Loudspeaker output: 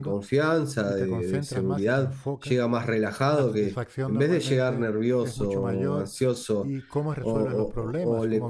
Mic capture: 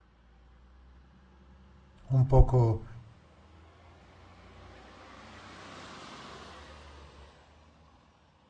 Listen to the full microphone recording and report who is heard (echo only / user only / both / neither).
user only